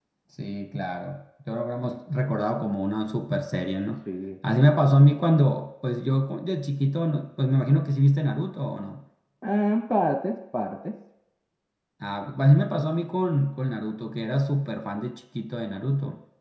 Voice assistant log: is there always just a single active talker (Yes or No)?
Yes